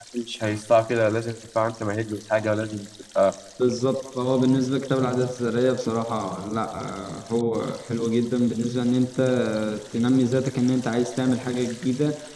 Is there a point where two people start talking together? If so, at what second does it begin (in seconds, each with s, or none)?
none